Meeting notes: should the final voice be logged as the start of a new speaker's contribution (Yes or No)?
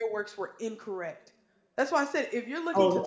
Yes